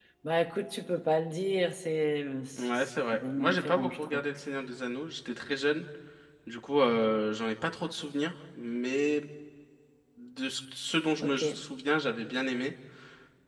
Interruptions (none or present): present